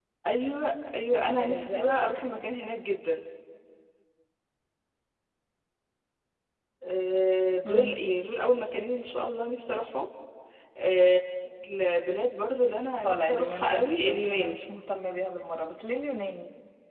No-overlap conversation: No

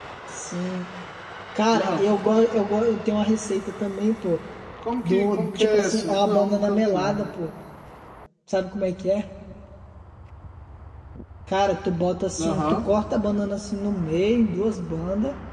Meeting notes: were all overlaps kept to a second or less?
No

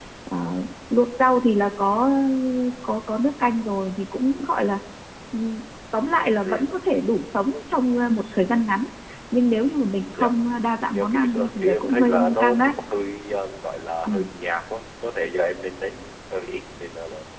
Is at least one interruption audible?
Yes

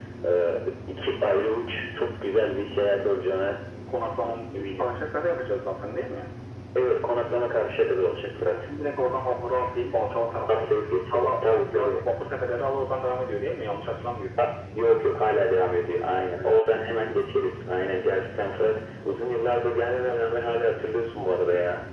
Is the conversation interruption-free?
No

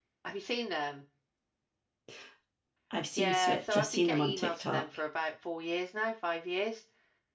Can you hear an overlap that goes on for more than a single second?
Yes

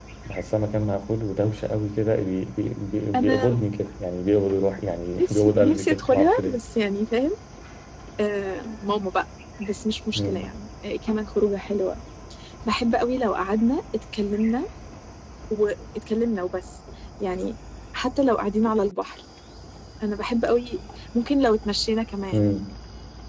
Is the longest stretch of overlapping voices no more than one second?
No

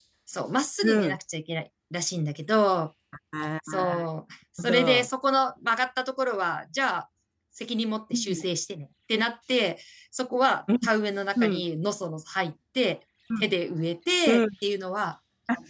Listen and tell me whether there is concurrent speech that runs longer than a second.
No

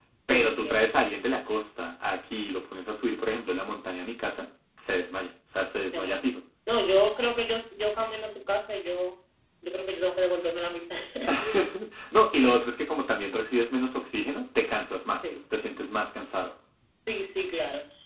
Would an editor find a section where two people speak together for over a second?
No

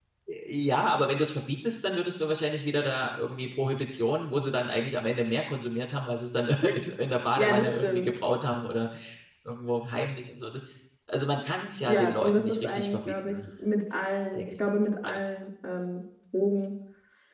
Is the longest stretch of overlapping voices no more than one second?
No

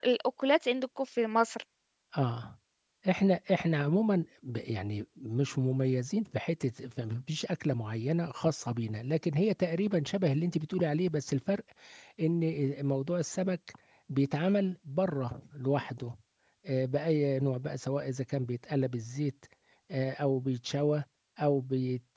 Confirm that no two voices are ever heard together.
Yes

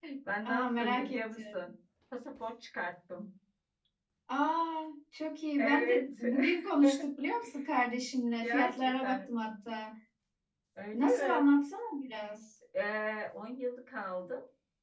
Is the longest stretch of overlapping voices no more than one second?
No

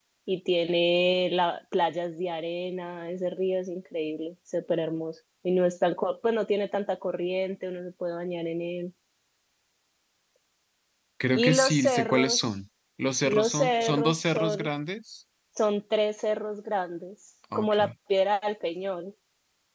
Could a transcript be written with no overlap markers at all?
No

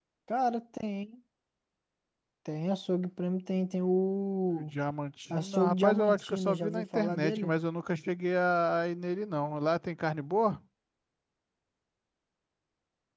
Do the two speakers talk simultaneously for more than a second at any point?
Yes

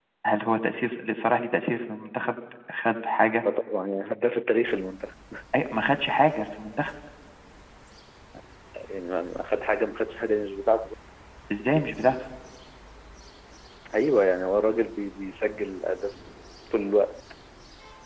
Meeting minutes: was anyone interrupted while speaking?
No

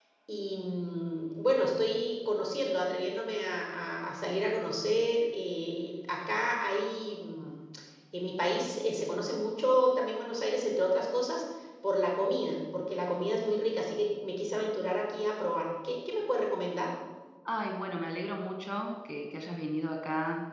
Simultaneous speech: No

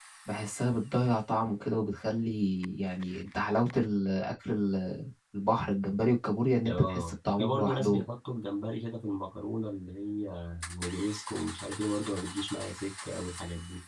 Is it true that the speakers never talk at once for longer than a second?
No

